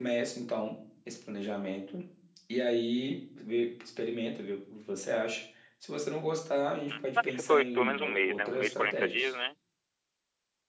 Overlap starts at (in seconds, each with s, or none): 6.9 s